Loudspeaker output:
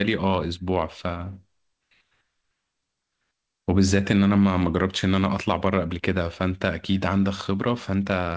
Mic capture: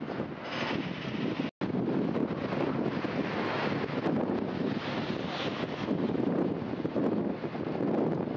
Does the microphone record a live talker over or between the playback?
No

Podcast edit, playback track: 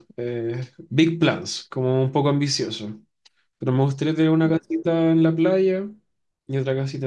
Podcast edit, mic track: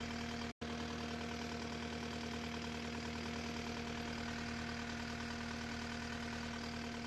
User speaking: No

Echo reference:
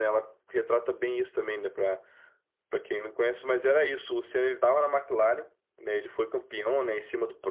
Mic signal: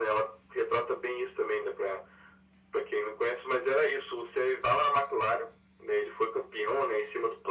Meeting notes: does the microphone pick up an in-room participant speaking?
No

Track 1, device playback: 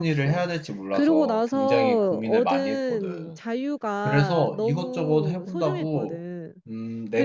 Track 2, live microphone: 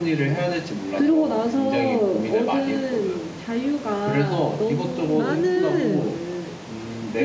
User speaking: Yes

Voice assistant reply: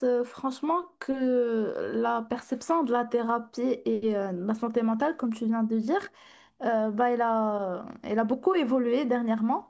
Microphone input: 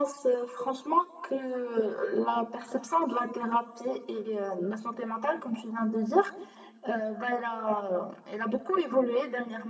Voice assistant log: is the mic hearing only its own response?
Yes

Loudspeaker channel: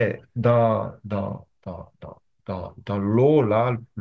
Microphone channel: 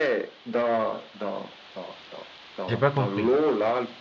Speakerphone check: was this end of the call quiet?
No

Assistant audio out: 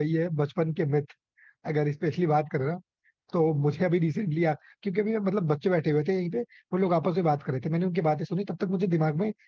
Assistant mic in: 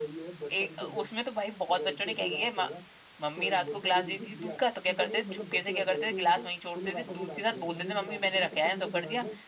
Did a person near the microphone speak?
Yes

